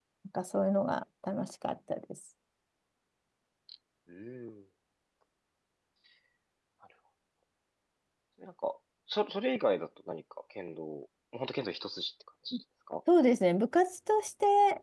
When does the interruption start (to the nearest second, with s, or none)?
none